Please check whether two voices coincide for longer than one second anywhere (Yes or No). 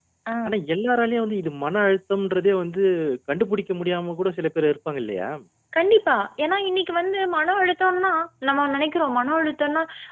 No